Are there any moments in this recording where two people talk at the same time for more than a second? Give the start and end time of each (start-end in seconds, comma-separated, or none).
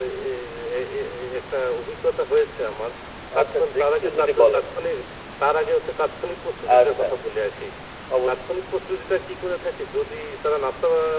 3.4-4.6